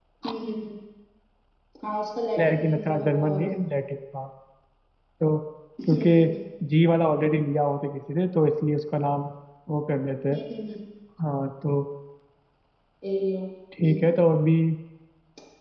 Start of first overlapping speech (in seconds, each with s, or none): 2.4 s